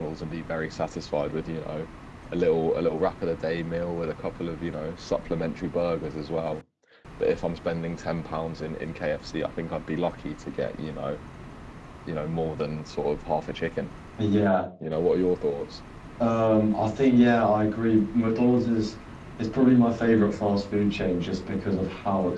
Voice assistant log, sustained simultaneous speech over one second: none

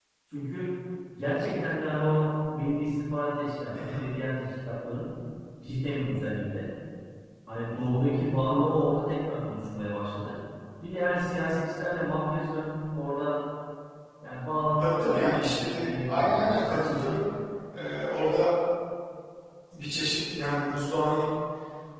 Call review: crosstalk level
present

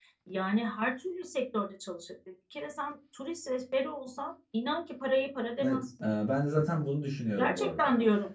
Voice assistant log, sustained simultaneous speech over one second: none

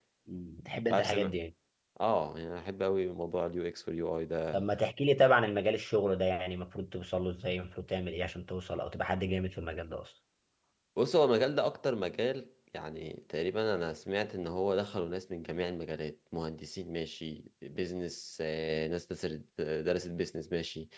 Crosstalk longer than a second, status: none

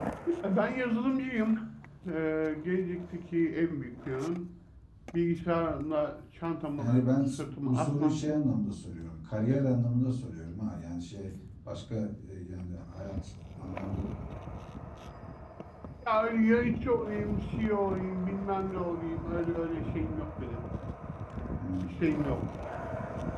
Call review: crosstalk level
present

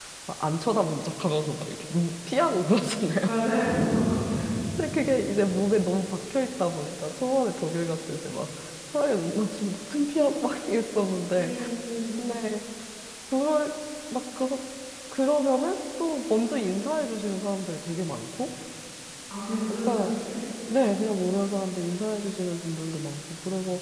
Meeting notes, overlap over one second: none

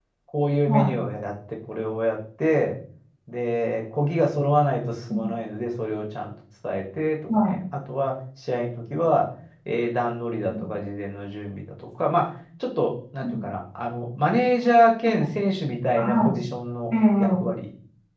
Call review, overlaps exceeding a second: none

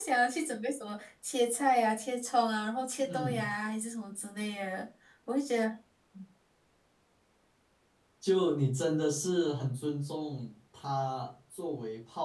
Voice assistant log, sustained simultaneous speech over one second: none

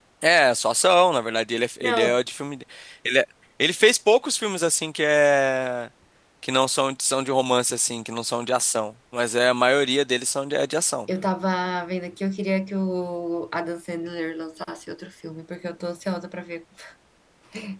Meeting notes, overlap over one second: none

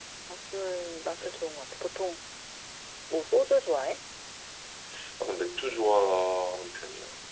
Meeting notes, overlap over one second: none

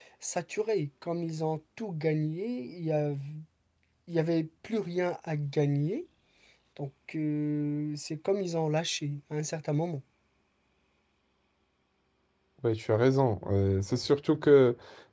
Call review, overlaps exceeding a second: none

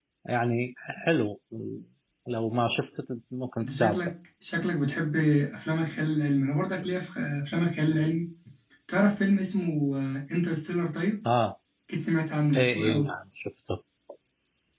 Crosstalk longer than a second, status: none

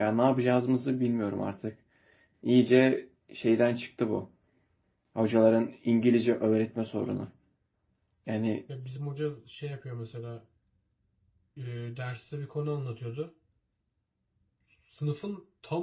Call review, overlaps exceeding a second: none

